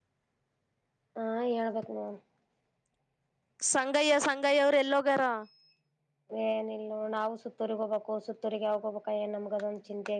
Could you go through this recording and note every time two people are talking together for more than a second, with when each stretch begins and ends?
none

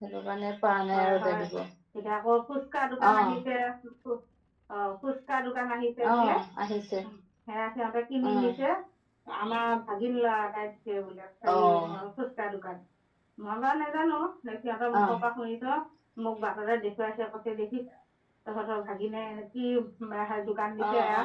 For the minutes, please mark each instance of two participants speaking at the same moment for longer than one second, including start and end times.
none

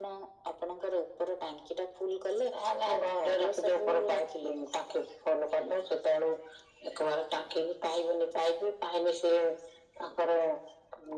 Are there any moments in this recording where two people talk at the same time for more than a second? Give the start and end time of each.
2.9-4.6

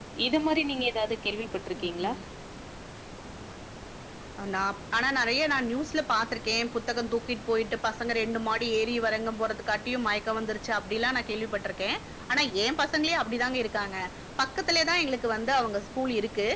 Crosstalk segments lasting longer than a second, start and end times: none

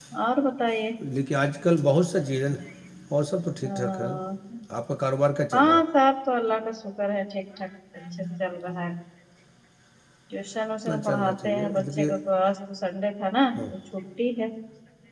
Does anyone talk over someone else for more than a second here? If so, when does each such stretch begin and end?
10.9-12.1

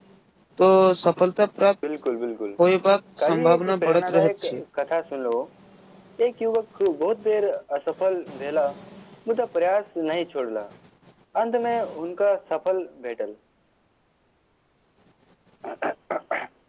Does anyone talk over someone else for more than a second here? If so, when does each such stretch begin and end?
3.2-4.6

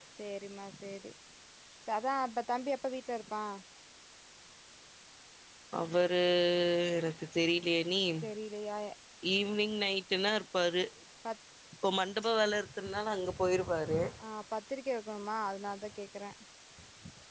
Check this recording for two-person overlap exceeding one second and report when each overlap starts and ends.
none

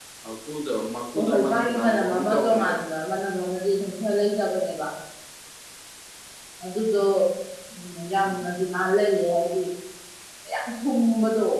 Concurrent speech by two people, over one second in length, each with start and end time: 1.1-2.8

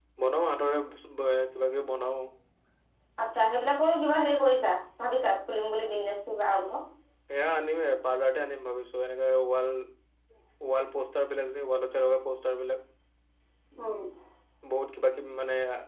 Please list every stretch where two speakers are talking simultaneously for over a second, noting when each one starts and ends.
none

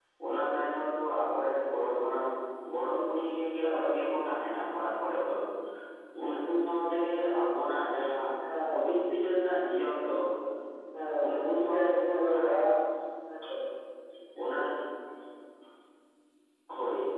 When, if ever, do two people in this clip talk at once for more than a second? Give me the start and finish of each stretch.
11.2-12.6

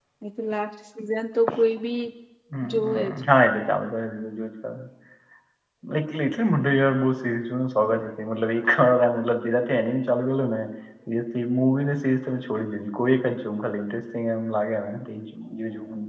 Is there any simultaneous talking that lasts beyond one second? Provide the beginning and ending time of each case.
none

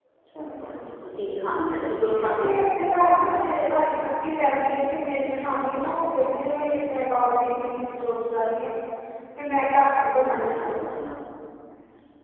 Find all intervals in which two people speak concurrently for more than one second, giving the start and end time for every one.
none

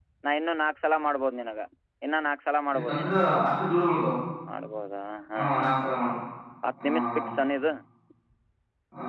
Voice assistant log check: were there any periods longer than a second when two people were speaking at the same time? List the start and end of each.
none

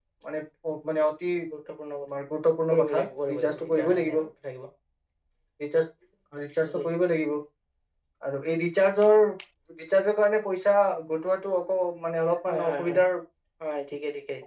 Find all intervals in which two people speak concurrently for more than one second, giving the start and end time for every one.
2.7-4.2

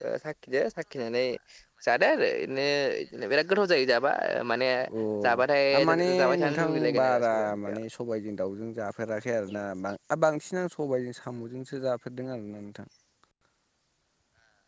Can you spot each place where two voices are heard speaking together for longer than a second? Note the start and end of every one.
5.8-7.6

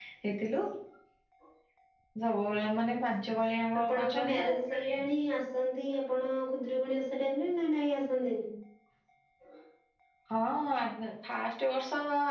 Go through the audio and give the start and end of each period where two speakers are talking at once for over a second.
3.8-5.0

